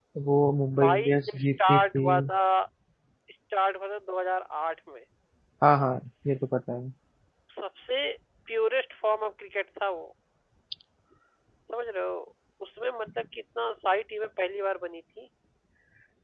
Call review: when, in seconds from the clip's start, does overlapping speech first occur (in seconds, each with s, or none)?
0.8 s